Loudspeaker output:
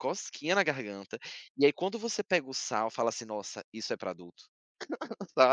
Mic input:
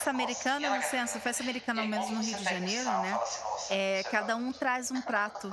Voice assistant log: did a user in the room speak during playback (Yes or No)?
Yes